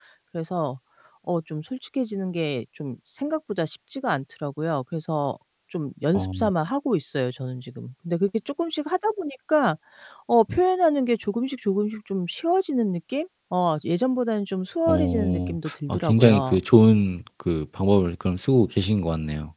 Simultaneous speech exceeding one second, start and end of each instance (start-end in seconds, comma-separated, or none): 14.9-16.6